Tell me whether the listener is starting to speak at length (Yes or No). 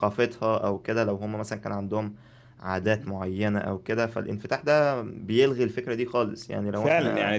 Yes